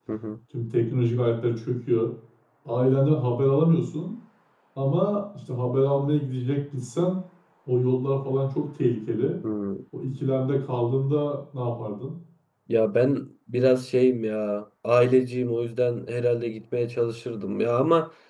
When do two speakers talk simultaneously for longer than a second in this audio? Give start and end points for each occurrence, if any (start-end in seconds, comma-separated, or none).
none